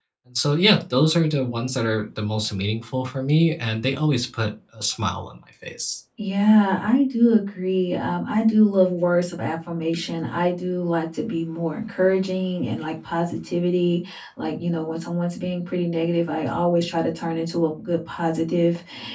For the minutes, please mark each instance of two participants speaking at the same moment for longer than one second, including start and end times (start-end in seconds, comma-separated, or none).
none